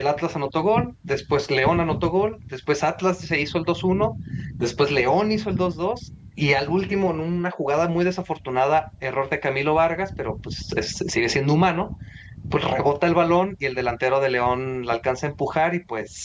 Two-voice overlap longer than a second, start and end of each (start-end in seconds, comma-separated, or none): none